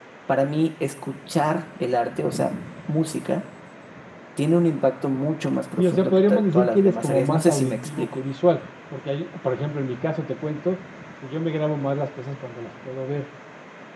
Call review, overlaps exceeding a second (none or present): present